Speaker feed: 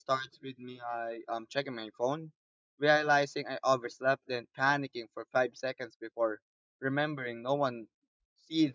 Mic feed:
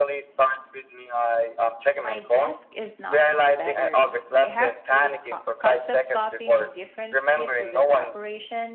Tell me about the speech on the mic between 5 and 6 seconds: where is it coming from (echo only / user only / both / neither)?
both